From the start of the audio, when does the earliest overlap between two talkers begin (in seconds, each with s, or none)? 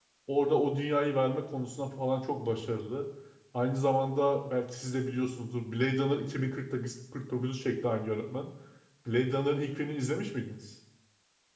none